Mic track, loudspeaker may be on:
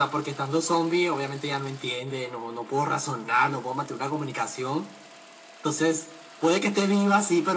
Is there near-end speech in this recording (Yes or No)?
No